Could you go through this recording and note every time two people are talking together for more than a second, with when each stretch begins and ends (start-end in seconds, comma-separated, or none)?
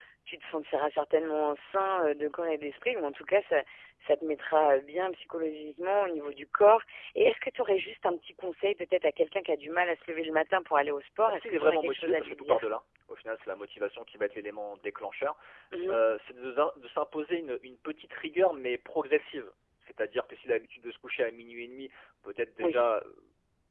11.3-12.6